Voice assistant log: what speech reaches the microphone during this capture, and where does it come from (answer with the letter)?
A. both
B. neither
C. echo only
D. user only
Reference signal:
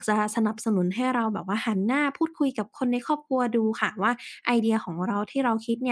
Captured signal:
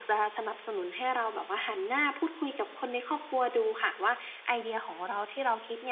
C